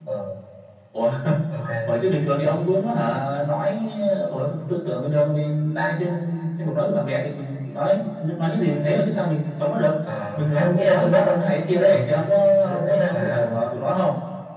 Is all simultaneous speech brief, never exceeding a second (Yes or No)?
No